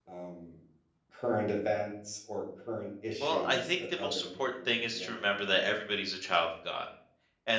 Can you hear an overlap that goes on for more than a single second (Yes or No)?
Yes